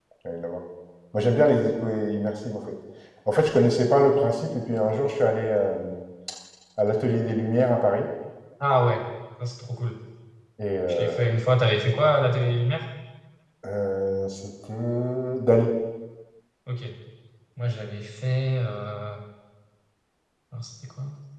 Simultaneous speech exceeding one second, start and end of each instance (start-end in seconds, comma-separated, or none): none